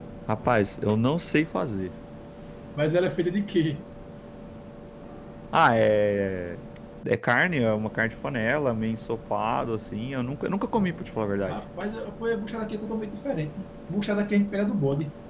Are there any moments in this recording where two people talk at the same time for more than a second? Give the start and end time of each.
none

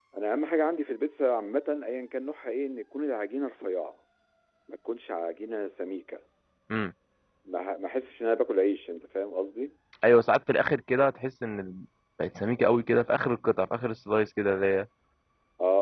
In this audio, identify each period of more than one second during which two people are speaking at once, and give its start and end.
none

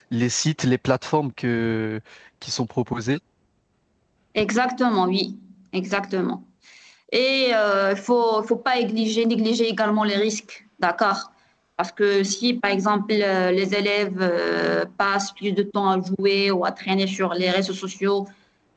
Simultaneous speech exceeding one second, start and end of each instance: none

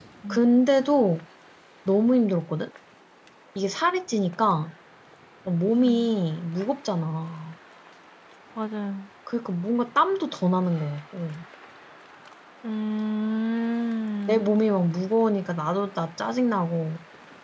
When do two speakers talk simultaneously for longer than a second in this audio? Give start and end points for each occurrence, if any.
none

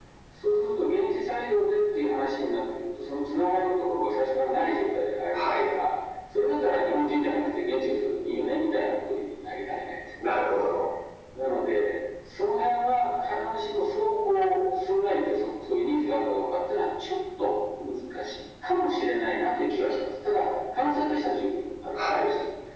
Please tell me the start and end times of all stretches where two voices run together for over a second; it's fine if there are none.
none

